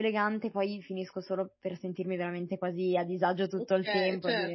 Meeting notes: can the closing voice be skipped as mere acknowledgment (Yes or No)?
No